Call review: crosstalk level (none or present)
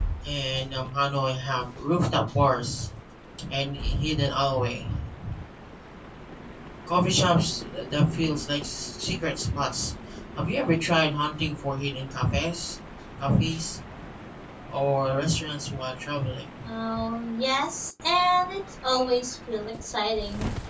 none